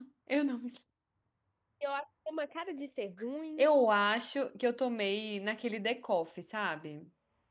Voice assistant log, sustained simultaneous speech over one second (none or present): none